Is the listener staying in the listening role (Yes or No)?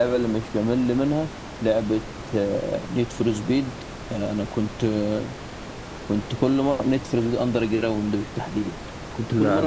Yes